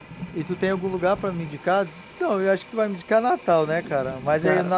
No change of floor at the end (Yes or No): Yes